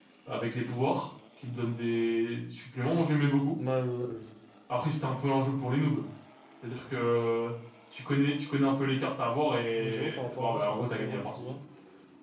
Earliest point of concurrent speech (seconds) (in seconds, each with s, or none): 9.8 s